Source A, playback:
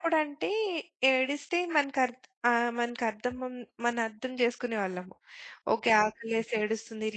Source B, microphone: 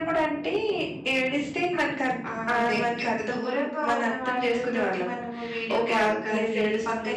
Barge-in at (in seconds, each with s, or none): 2.3 s